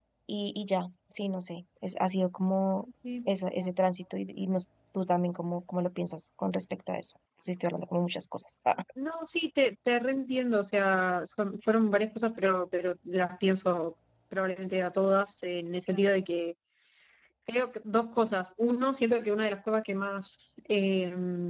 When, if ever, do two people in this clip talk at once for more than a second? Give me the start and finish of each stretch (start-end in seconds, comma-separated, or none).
none